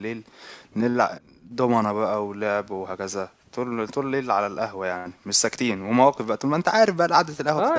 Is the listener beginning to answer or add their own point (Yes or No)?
Yes